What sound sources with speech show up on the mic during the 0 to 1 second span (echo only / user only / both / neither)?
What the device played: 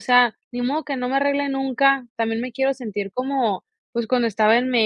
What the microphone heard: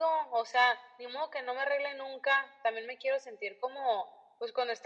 echo only